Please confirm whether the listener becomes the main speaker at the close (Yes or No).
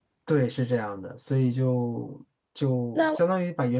No